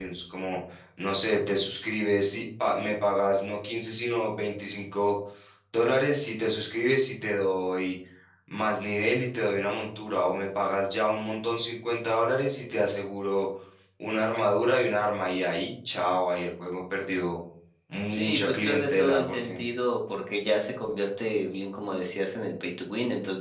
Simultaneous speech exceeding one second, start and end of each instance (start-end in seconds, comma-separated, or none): 18.1-19.6